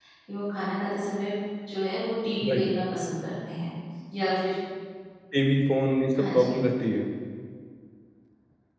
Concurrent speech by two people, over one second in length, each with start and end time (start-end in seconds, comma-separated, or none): none